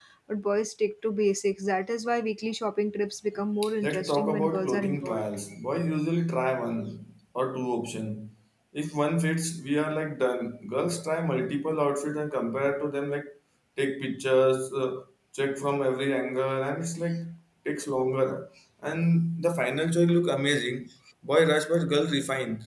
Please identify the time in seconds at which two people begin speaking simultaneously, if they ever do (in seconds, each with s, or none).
3.8 s